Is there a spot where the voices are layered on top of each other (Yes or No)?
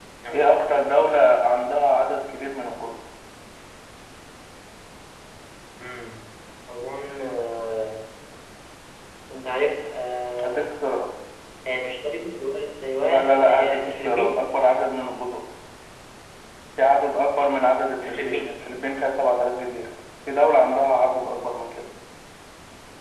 Yes